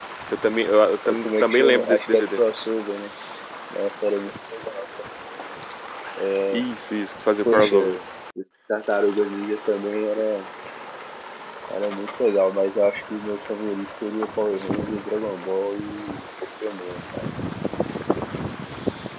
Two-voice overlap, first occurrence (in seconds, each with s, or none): 1.1 s